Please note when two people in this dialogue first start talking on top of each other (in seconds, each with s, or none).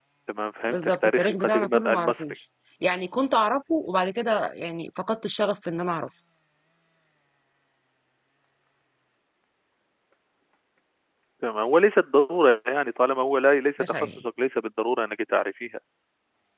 0.7 s